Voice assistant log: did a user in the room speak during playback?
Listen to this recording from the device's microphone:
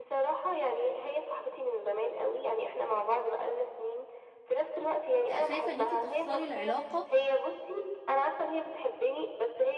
Yes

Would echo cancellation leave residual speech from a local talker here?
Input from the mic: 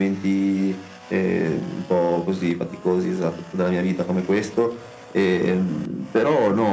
No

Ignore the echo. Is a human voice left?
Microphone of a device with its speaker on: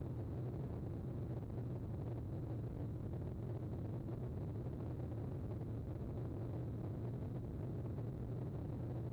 No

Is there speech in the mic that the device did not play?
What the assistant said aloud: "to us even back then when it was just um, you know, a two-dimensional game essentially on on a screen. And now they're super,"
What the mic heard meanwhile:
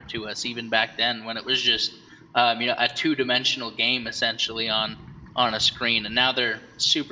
No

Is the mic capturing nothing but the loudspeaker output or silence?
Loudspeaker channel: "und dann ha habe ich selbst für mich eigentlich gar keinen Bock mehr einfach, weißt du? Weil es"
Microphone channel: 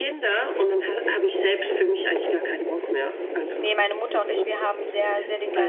No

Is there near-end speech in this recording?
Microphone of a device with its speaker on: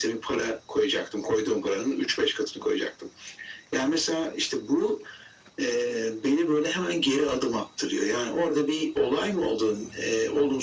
No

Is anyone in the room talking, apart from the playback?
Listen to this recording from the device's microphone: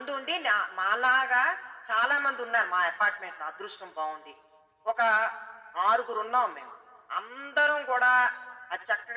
No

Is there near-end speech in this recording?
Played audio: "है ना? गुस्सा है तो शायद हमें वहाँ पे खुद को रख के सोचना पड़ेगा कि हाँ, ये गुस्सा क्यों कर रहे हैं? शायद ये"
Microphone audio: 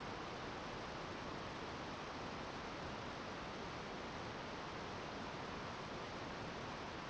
No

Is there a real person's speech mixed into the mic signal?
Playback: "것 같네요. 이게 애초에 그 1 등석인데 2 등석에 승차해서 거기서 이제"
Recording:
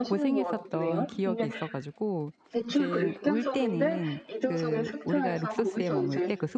Yes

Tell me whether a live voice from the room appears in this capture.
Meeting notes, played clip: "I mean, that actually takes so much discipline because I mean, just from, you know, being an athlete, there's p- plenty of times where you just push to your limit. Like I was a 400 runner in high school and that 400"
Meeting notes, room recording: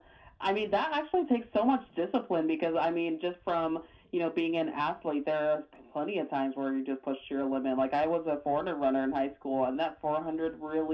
No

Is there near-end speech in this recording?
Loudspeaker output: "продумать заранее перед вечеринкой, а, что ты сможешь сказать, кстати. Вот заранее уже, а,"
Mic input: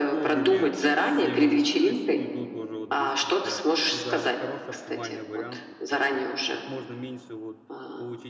Yes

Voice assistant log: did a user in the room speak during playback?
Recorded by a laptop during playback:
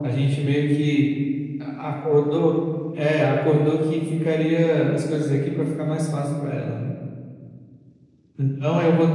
No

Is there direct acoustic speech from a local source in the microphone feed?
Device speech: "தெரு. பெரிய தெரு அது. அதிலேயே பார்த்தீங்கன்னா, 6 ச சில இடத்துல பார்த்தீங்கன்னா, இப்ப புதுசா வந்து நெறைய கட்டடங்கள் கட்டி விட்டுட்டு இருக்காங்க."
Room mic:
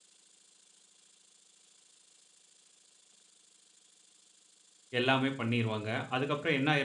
Yes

